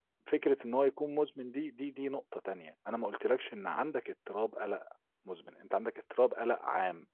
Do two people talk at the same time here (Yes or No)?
No